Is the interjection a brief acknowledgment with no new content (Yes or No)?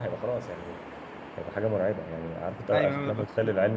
Yes